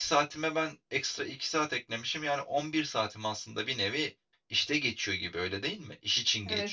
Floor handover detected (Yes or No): Yes